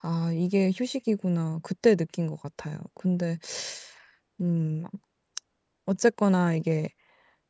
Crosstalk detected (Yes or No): No